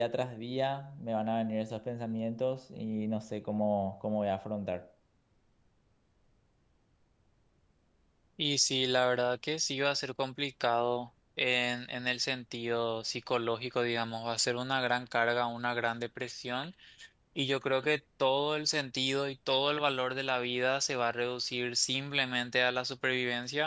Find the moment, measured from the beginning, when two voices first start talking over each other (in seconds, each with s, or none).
none